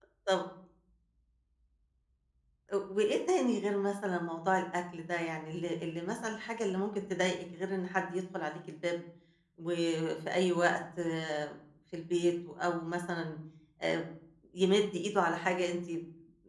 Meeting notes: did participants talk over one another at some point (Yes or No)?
No